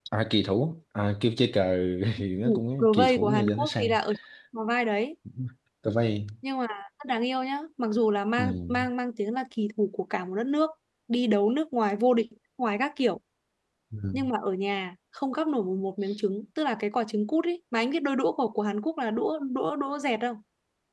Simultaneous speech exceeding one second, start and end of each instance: 2.4-4.0

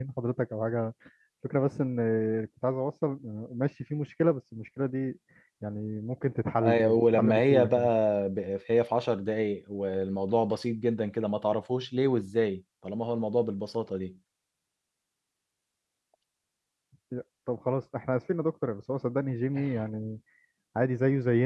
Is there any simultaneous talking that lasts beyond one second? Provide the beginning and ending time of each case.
6.6-7.9

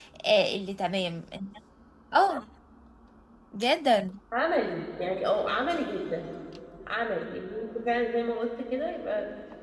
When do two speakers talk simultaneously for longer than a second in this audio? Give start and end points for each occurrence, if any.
none

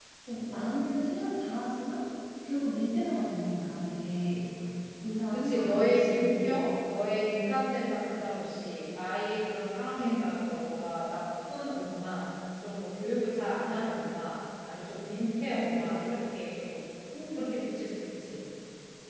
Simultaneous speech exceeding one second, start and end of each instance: 5.3-6.5

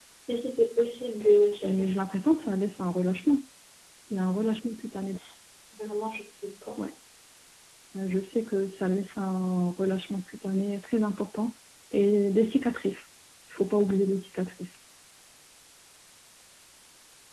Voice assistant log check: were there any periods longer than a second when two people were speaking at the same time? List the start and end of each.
none

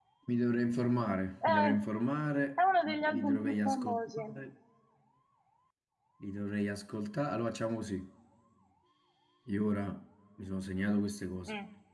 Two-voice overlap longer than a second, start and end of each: 2.9-4.4

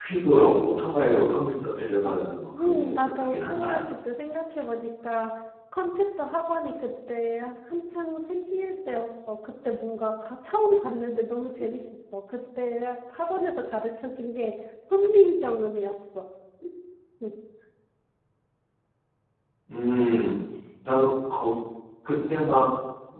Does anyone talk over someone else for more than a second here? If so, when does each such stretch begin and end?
2.0-3.8

